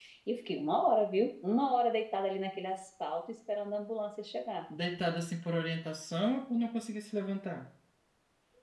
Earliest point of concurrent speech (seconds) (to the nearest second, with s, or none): none